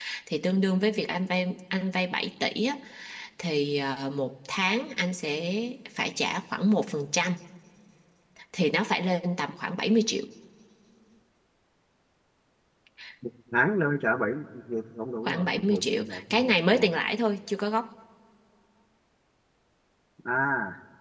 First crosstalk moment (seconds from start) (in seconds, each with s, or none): 15.2 s